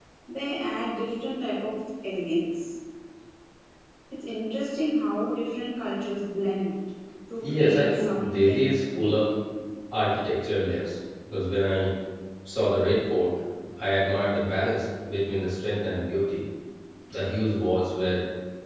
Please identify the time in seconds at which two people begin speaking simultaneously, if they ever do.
7 s

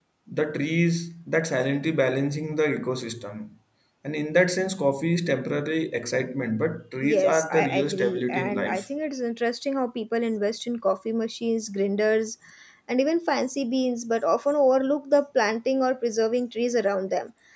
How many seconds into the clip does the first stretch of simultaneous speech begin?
7 s

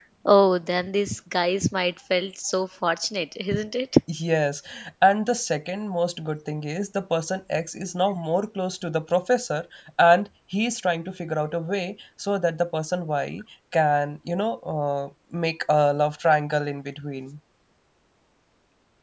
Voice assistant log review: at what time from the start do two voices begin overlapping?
none

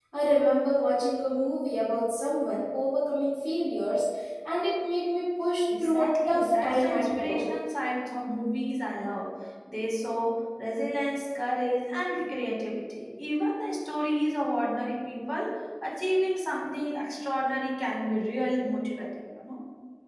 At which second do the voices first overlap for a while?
6 s

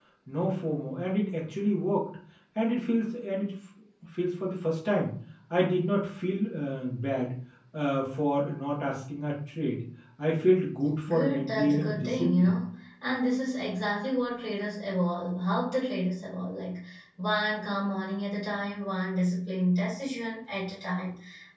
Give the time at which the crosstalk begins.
11 s

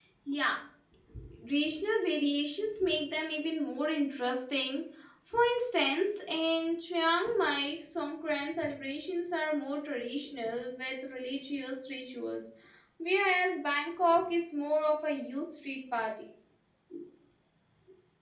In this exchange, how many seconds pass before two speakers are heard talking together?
none

